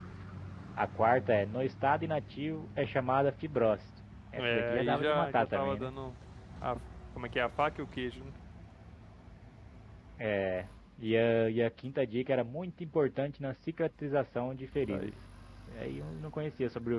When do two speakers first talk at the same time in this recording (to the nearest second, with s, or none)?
4 s